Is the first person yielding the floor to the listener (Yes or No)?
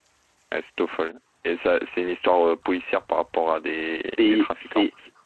Yes